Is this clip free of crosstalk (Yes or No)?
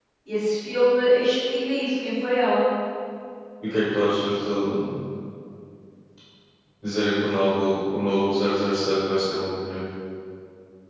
Yes